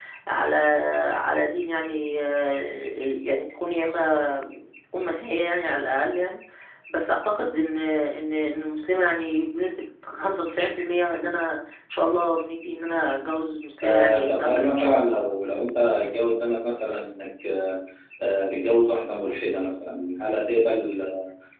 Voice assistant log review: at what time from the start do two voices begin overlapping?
13.8 s

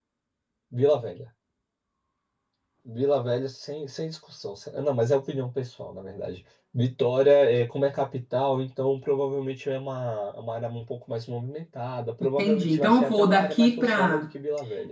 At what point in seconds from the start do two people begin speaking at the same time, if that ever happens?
12.4 s

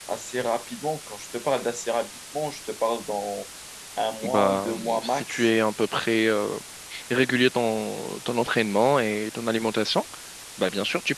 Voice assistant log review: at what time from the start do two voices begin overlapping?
4.2 s

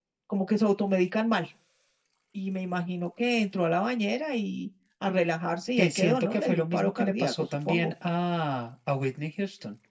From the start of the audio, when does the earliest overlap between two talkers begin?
5.8 s

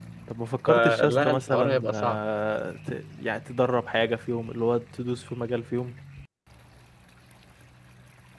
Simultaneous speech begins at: 0.7 s

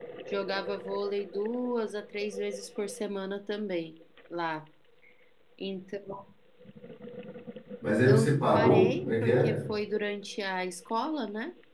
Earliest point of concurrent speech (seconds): 8.1 s

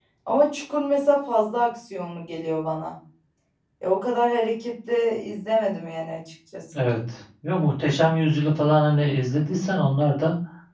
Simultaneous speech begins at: none

